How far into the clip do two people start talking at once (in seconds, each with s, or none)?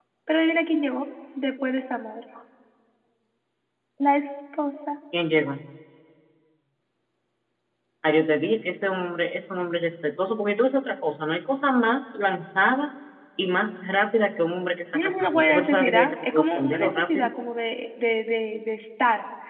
14.9 s